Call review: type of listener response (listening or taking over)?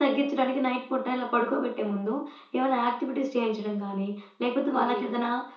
listening